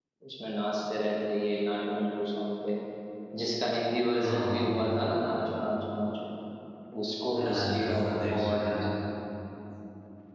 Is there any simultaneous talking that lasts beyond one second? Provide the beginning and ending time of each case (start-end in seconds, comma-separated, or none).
7.3-8.8